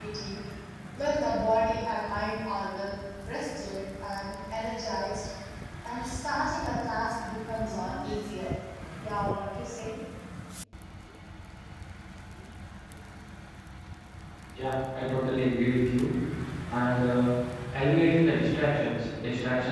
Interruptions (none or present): none